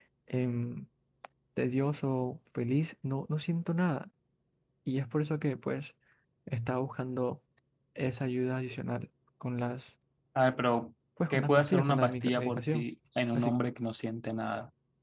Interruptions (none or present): present